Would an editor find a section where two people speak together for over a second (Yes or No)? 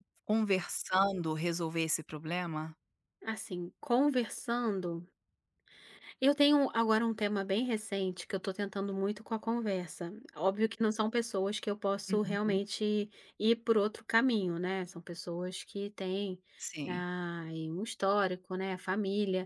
No